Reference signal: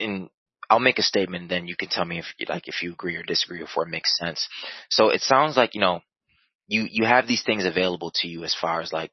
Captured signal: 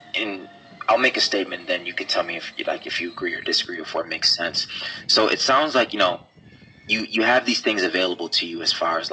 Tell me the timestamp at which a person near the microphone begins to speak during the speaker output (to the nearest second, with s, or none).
none